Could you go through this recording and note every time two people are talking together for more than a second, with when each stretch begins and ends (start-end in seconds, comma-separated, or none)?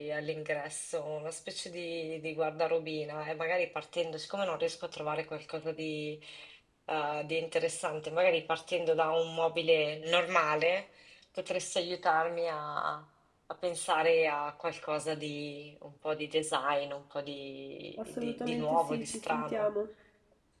18.0-19.7